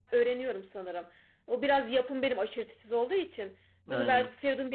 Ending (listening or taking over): listening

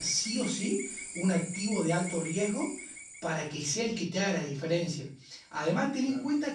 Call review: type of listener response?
listening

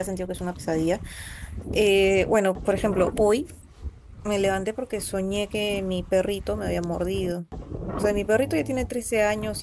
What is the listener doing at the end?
listening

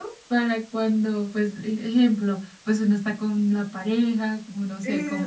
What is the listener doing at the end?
listening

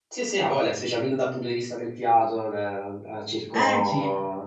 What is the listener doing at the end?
listening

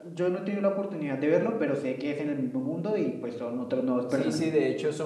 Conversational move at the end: taking over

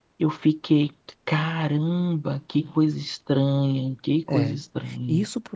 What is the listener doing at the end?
taking over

